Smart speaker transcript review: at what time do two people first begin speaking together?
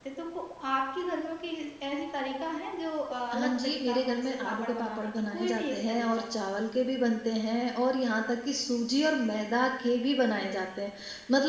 3.3 s

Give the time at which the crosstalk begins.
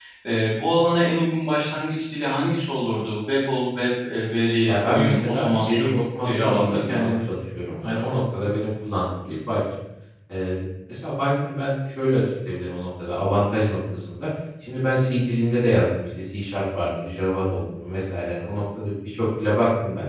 4.7 s

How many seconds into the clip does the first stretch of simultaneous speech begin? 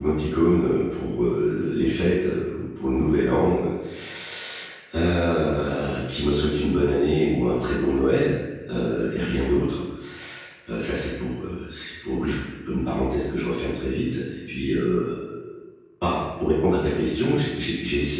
none

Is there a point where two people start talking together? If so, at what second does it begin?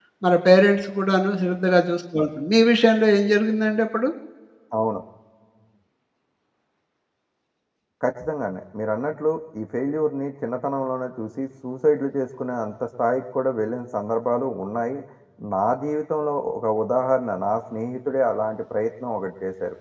none

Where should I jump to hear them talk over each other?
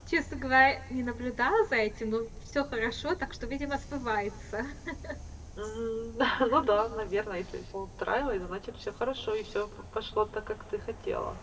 none

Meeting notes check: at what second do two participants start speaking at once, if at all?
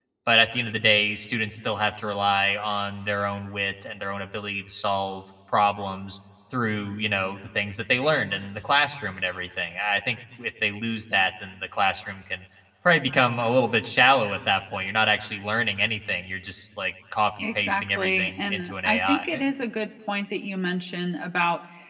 17.4 s

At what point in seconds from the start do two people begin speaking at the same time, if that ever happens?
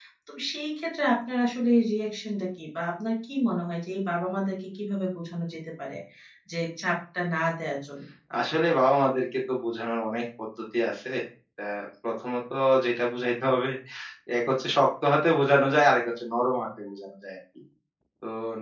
none

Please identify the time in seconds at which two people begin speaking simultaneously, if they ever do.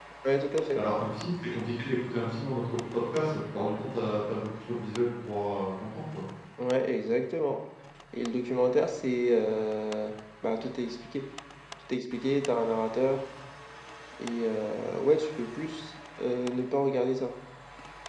none

